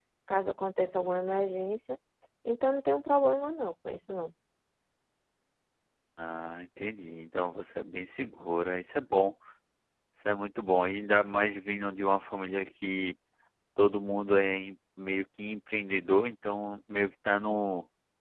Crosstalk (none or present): none